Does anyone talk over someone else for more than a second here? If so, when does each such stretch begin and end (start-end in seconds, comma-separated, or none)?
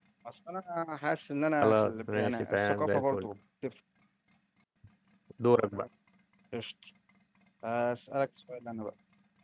1.6-3.3